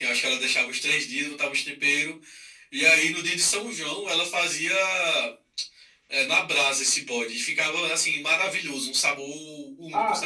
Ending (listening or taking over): taking over